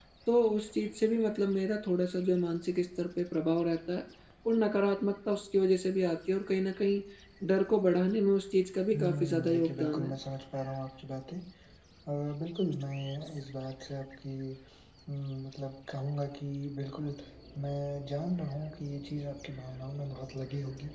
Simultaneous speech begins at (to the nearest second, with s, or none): 9 s